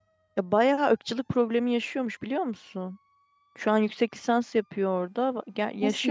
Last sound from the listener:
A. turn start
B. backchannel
B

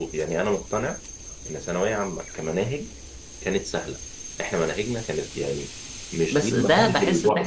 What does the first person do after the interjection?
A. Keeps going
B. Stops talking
B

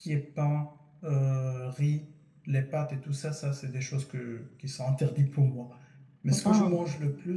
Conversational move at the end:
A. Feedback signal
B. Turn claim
A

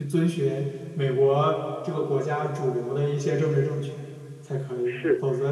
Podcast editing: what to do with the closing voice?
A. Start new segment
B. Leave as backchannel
B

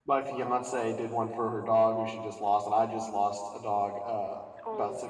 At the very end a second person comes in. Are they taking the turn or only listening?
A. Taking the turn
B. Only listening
B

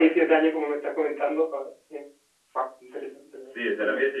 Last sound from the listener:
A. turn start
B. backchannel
A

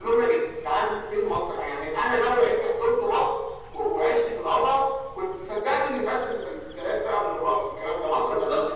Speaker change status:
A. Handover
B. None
A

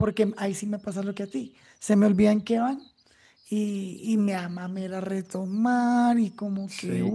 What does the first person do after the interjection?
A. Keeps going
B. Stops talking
B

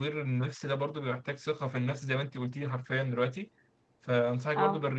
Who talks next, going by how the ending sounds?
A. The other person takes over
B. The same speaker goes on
B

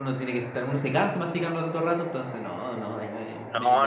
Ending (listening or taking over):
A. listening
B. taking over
B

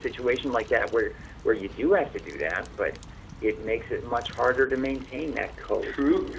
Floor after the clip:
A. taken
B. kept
A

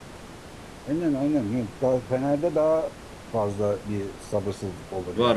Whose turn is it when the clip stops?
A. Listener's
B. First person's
A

